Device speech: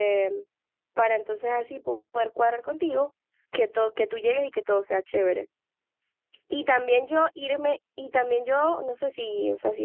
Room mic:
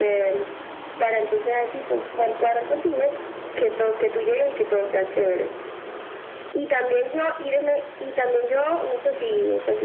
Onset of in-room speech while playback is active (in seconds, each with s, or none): none